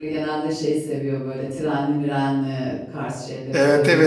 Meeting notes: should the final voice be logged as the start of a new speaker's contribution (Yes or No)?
Yes